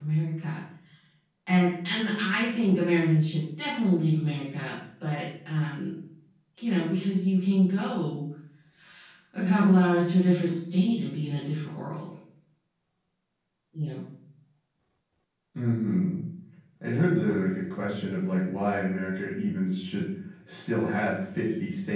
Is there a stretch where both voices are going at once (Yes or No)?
No